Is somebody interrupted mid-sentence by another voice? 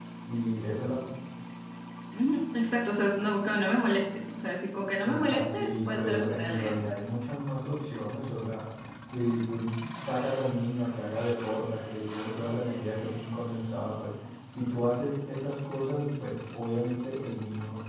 Yes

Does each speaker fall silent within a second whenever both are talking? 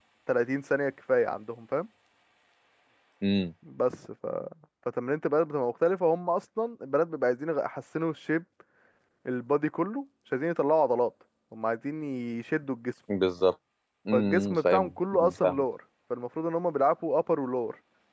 No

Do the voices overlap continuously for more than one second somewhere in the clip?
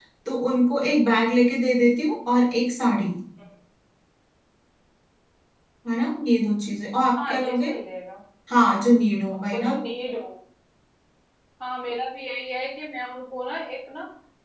No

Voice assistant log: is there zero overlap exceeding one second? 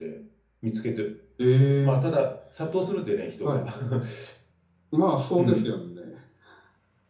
Yes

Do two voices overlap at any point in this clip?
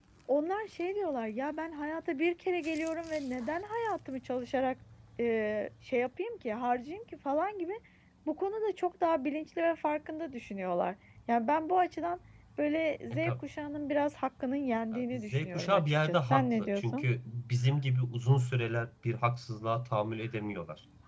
Yes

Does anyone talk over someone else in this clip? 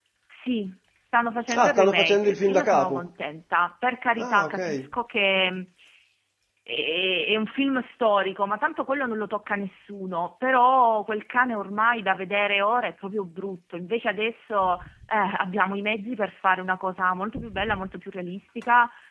Yes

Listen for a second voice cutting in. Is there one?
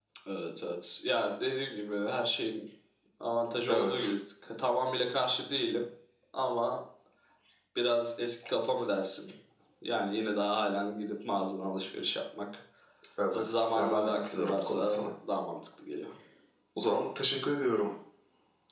Yes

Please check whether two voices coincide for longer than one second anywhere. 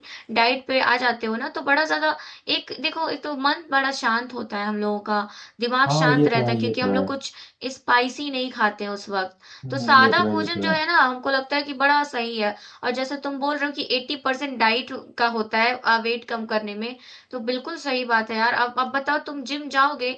Yes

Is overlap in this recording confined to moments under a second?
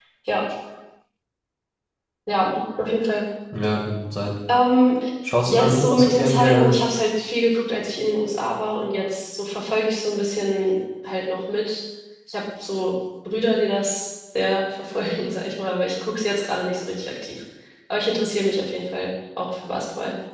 No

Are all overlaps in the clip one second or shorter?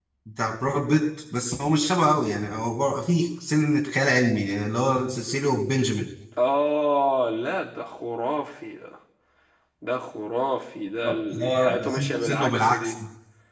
No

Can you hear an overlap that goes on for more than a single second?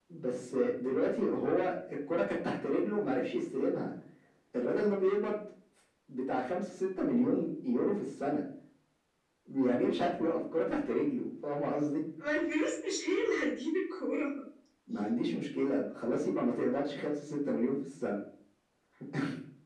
No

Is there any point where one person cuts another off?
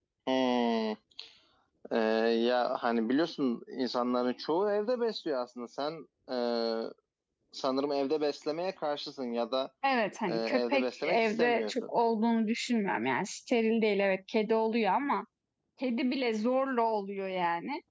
Yes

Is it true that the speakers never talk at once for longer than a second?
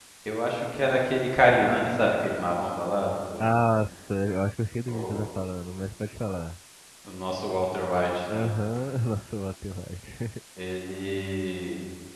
Yes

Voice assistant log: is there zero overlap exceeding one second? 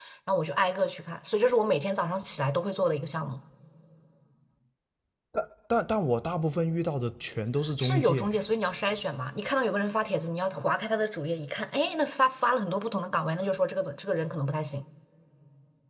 Yes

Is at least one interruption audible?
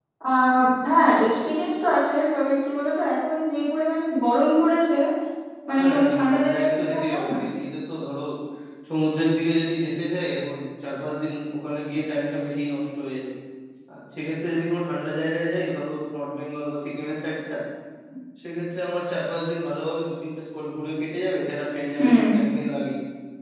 Yes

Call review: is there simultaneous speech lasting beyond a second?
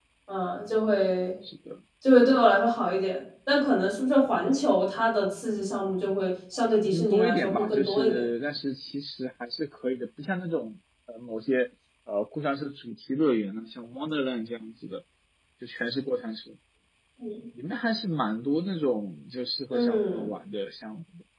Yes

